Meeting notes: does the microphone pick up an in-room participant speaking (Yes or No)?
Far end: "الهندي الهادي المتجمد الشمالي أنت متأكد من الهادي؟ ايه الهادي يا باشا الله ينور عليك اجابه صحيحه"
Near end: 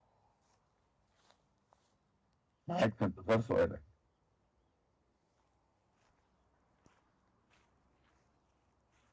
Yes